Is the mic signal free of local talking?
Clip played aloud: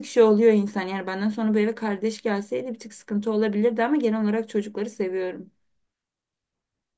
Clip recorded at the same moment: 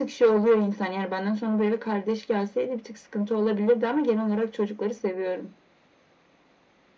Yes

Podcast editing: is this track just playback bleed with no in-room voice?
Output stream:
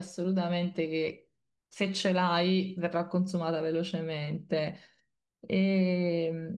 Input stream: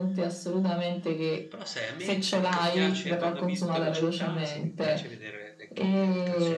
No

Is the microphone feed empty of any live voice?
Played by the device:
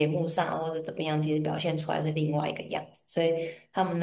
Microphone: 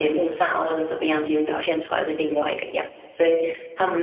Yes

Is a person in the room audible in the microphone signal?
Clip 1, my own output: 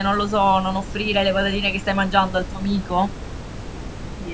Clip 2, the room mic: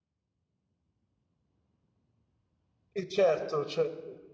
Yes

